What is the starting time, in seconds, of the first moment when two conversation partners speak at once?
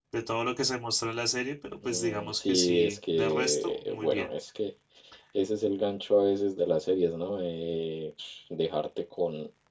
2 s

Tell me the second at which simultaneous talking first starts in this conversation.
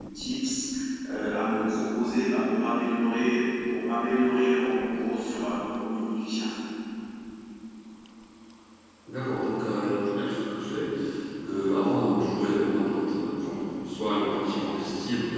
none

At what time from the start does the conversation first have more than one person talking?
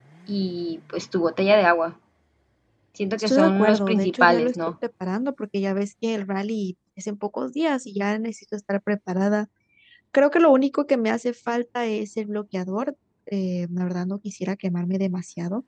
3 s

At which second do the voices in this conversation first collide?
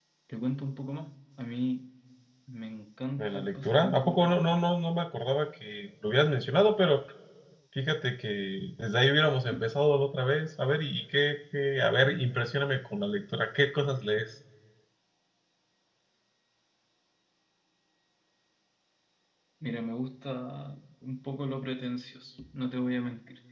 3 s

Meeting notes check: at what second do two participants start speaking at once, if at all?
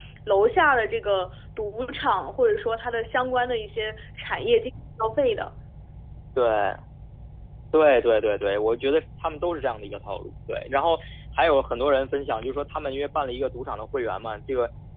none

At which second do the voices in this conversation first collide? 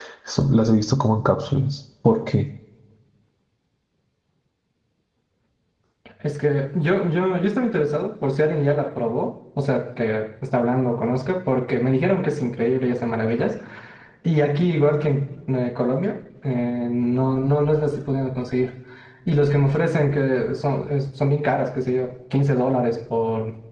none

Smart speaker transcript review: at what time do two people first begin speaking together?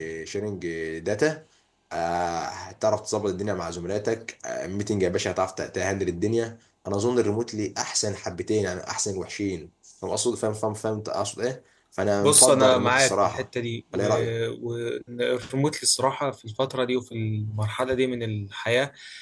12 s

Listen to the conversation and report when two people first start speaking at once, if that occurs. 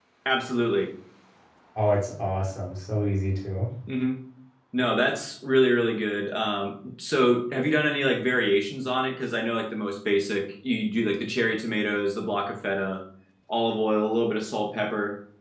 none

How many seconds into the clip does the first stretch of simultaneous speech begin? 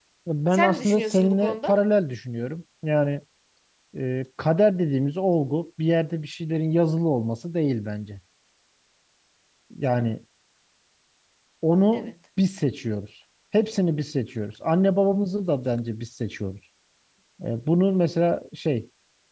1 s

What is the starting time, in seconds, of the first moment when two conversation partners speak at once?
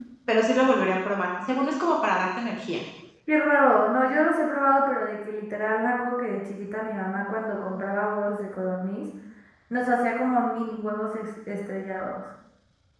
none

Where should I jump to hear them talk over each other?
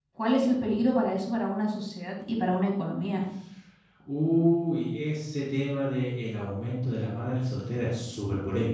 none

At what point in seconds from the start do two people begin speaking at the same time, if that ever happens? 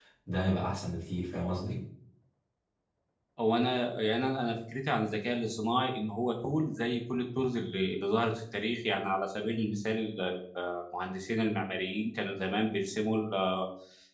none

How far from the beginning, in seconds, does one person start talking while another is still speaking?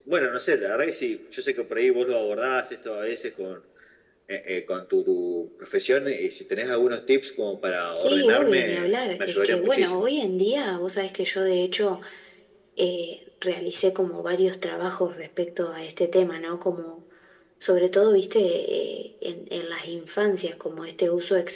8 s

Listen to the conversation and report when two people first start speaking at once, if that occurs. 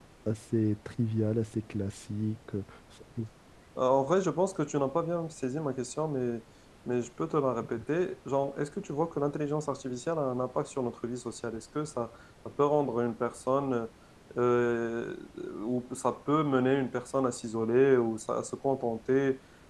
none

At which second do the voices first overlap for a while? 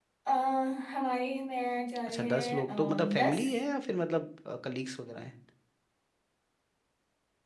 2 s

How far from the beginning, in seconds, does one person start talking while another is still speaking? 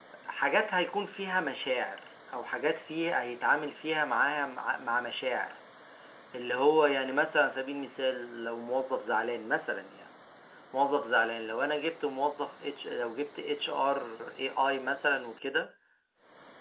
none

